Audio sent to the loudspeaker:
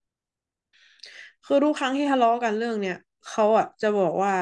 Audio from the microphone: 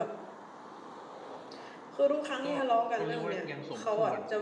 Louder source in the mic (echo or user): echo